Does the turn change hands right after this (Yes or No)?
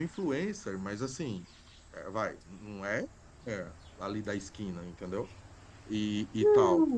Yes